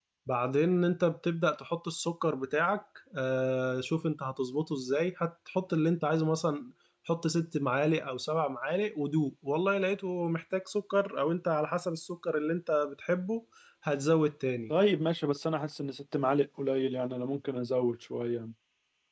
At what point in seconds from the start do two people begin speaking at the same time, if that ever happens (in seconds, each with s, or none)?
none